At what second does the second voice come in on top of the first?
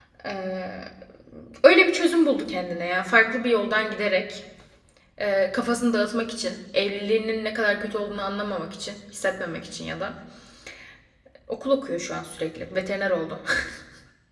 none

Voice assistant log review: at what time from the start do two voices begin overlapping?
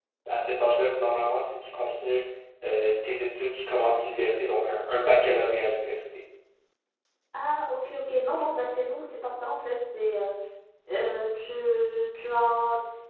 none

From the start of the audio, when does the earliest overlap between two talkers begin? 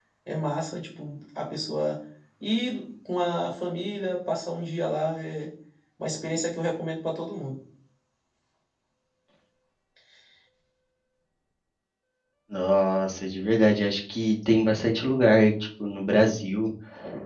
none

